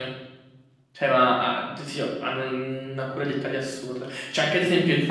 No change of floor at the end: Yes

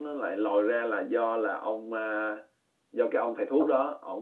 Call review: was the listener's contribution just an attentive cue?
Yes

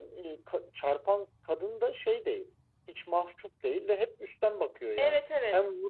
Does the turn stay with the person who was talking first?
Yes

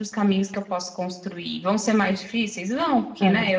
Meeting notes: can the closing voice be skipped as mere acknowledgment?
Yes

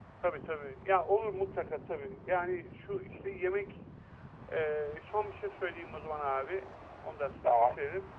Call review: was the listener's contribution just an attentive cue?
Yes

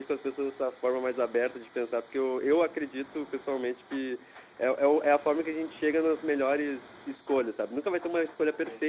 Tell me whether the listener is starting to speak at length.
No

